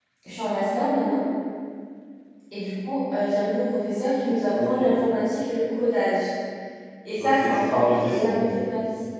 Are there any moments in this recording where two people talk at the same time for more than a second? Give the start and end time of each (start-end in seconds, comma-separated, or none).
7.2-8.6